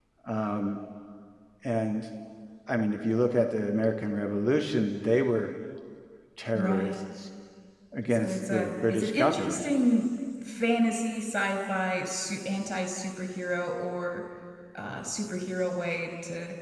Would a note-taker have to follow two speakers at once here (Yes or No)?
Yes